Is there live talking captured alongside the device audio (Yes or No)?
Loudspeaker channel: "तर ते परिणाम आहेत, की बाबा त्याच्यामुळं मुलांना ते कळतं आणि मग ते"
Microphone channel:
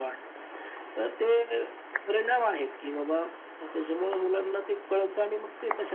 No